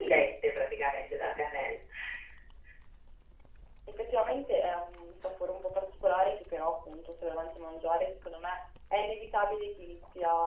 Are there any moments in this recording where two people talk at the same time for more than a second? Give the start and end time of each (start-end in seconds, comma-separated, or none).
none